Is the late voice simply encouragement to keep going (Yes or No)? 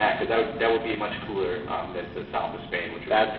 Yes